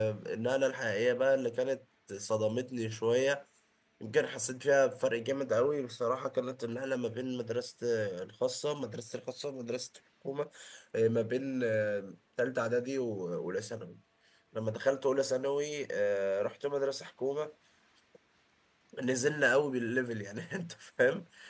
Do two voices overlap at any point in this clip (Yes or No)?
No